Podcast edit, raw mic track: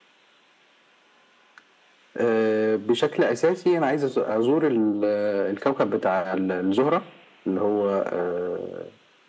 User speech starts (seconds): none

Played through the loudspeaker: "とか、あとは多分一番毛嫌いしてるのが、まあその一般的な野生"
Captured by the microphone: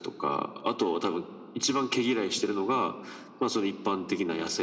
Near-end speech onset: none

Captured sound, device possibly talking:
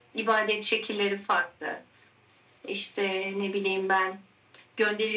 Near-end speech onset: none

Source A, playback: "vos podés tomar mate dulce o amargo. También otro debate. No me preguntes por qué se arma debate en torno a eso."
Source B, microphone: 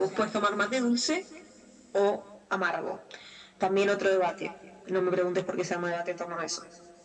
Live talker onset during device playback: none

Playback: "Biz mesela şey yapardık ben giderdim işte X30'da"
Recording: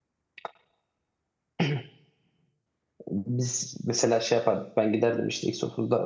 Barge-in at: none

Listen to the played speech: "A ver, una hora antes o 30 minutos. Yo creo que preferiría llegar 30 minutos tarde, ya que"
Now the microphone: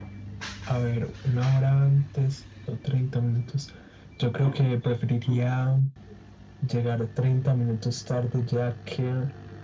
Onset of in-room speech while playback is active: none

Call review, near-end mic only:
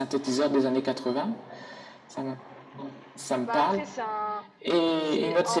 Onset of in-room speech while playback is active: 3.4 s

